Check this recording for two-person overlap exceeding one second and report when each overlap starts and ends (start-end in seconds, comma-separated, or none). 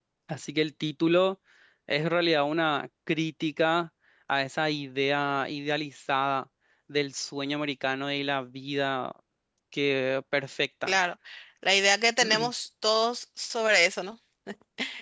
none